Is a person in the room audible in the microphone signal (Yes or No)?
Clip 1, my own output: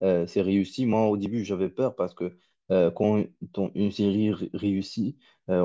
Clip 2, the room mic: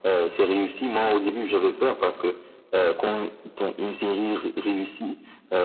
No